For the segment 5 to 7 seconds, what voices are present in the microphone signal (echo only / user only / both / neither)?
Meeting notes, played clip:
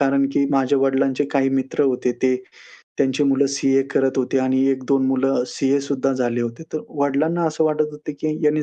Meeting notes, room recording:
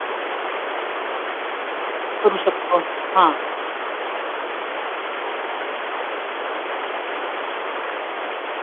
neither